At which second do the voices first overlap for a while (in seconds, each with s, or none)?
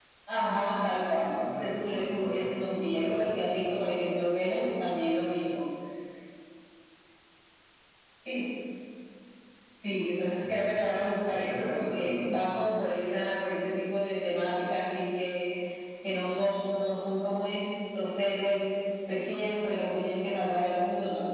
1.6 s